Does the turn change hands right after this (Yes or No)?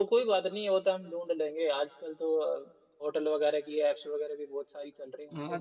Yes